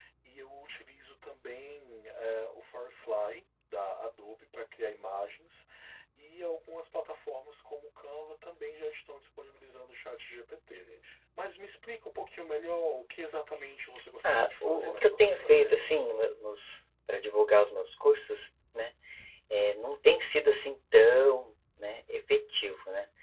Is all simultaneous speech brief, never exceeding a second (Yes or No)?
No